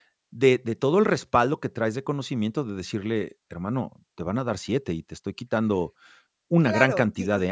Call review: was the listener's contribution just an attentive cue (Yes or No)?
No